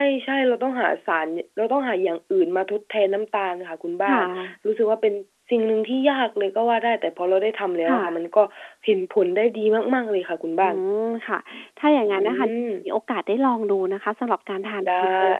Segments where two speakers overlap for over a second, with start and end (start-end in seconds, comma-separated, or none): none